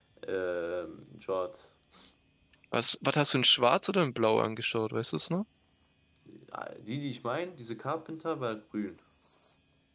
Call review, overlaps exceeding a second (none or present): none